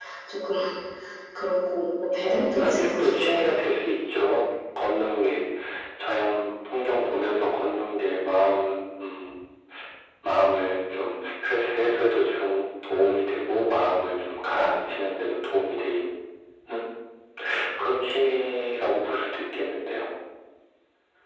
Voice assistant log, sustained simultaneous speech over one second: present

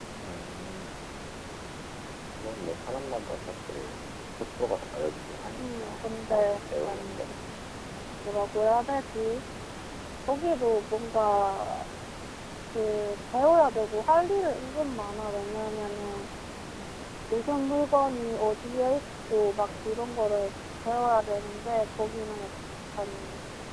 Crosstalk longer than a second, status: present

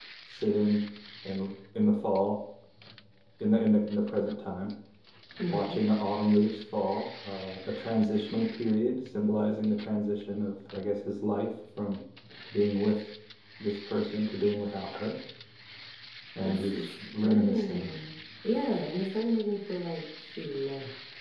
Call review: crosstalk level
present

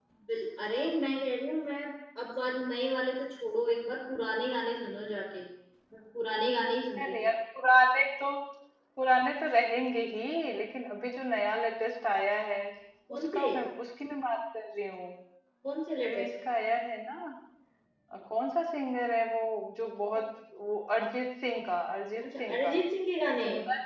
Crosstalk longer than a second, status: none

